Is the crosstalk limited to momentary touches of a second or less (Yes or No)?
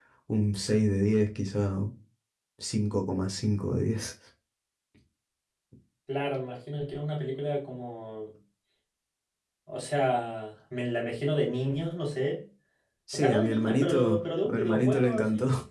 No